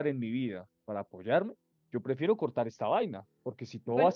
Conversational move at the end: listening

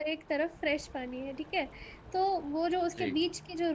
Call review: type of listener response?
listening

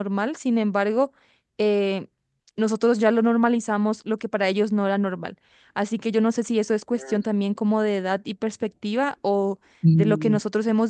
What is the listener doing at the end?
listening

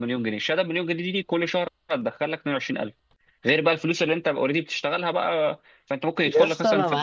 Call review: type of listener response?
taking over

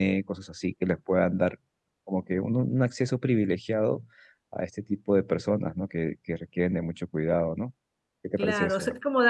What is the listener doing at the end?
taking over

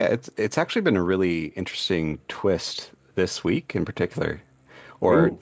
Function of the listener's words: listening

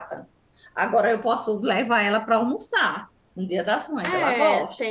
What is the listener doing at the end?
taking over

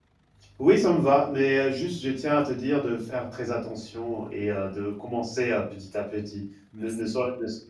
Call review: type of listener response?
listening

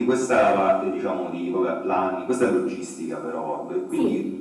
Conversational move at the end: listening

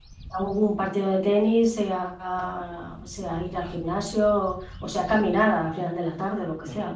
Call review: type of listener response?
taking over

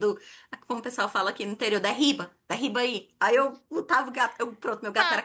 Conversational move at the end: taking over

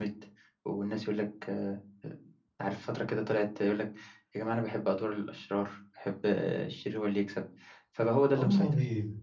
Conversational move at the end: taking over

